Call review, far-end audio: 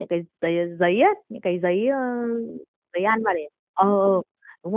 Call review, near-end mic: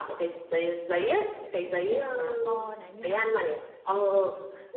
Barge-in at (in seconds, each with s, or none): 1.6 s